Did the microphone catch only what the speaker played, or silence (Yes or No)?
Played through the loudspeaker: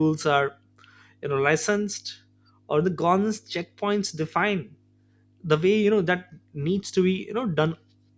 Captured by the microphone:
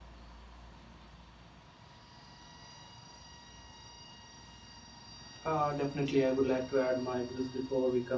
No